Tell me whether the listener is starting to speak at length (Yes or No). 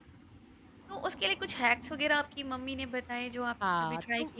Yes